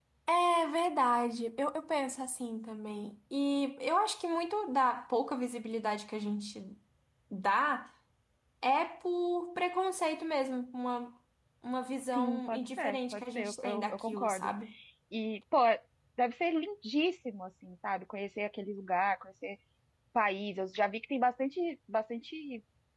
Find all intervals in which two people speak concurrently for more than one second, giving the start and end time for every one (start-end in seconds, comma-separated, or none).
12.1-14.5